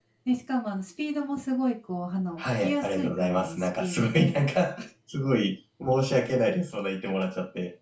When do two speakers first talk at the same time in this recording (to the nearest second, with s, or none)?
2 s